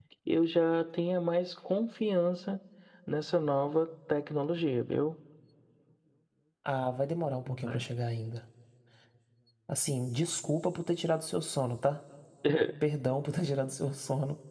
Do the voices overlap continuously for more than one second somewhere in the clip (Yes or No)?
No